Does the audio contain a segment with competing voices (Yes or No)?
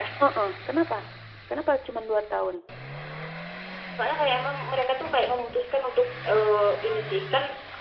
No